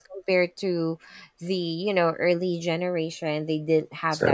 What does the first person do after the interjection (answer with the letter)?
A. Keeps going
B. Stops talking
A